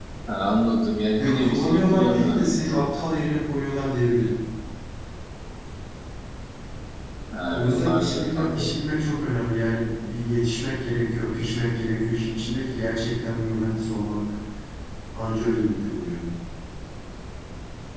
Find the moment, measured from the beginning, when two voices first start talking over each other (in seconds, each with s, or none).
1.2 s